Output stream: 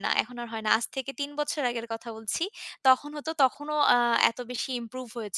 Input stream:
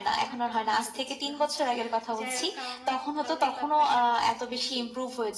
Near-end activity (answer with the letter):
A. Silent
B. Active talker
B